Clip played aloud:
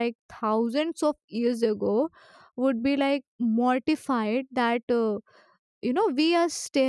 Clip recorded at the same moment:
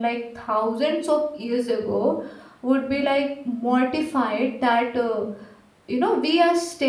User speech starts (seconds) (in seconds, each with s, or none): none